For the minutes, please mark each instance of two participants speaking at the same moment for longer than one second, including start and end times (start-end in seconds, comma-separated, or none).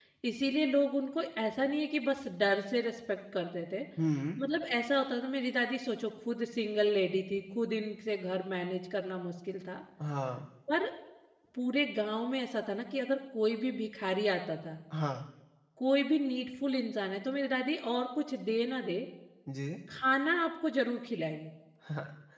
none